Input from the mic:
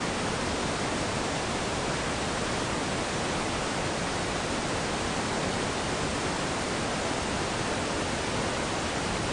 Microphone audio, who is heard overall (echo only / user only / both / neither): neither